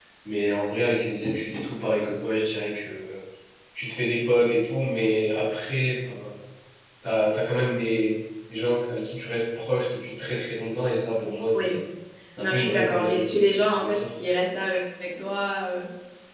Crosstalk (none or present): present